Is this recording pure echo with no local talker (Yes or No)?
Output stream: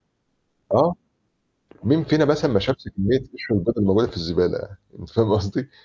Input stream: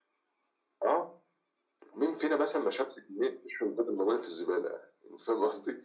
Yes